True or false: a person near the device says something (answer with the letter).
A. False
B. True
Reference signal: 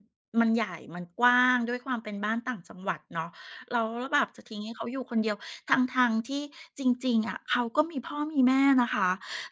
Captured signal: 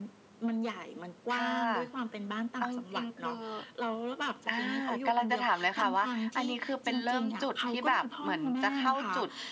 B